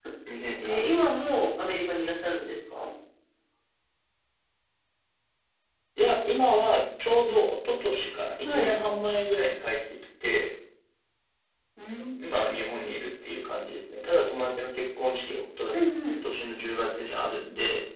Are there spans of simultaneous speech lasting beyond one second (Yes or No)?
No